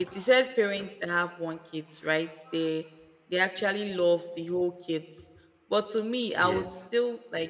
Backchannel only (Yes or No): Yes